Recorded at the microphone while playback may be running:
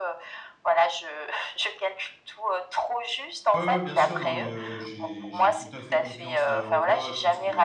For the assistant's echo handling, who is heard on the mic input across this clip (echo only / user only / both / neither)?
both